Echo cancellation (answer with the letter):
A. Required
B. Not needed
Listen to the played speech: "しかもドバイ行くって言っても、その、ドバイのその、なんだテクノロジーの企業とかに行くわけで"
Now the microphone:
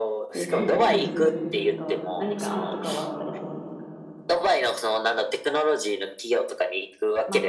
A